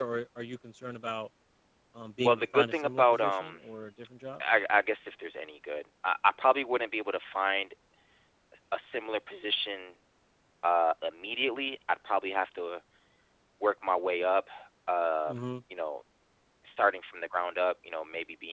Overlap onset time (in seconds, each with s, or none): 2.2 s